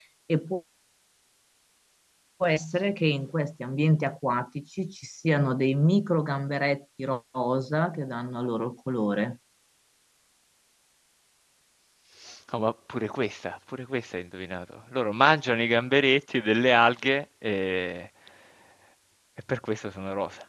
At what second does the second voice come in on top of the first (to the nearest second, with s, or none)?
none